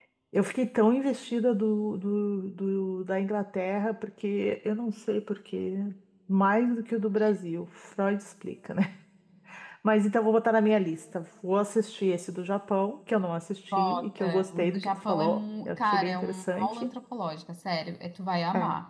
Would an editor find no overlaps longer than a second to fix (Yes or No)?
No